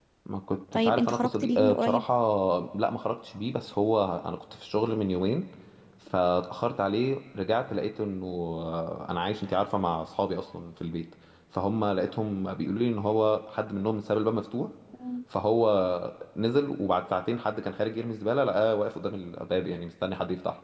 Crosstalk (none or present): present